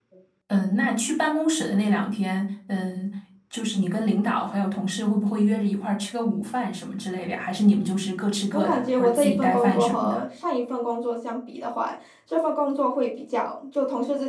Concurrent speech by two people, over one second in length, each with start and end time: 8.5-10.2

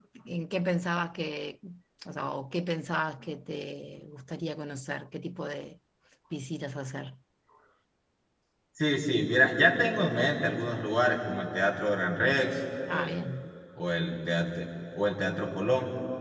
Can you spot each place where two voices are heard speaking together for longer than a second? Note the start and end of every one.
none

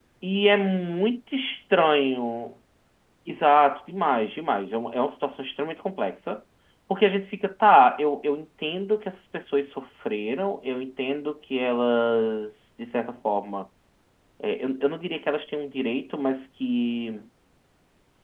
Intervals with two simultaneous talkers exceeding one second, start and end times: none

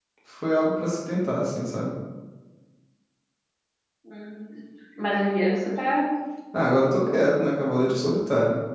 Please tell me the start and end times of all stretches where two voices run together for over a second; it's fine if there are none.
none

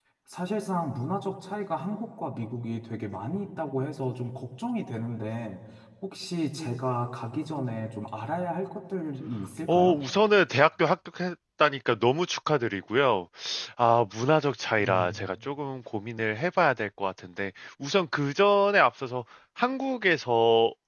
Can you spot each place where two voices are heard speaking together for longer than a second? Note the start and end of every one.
none

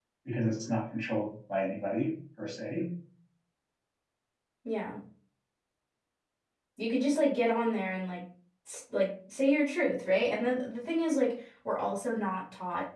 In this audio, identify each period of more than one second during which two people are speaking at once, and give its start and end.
none

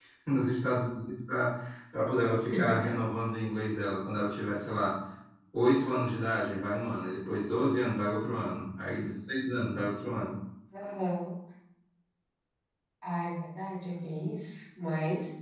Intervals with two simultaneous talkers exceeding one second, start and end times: none

